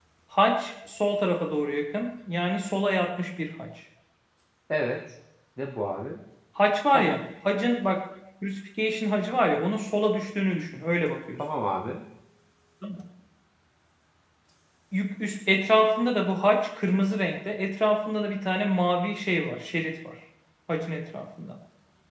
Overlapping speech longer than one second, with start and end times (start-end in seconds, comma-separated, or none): none